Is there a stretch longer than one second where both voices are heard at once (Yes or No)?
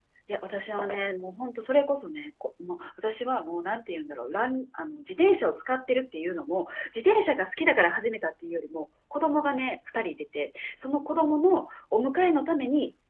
No